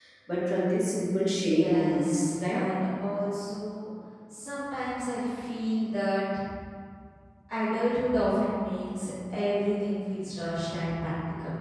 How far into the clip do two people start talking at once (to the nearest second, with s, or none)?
1 s